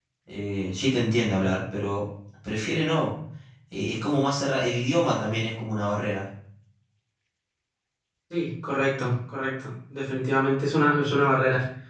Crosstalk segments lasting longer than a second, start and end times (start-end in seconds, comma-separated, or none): none